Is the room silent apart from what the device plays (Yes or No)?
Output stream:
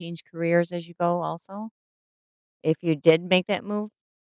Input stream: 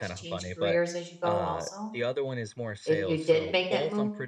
No